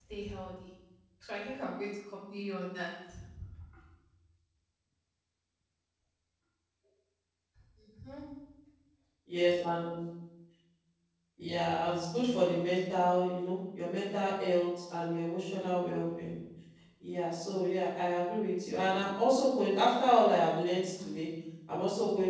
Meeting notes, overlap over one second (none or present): none